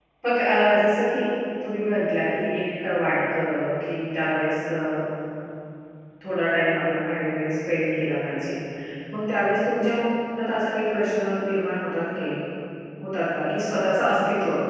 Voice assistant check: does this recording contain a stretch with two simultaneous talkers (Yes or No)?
No